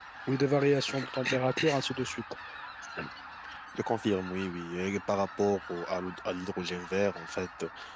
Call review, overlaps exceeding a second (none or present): none